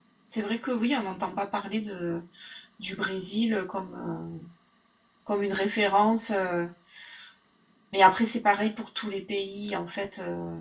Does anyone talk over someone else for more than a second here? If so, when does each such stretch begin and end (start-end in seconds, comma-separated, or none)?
none